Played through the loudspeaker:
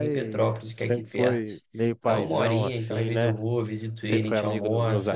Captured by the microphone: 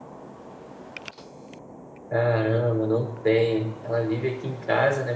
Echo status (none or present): none